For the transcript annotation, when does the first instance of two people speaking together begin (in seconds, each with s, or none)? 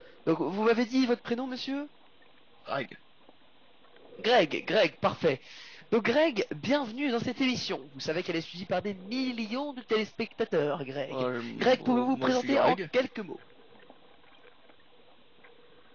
11.1 s